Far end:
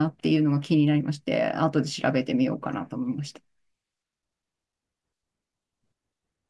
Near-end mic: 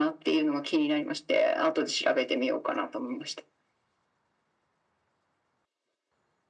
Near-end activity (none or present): none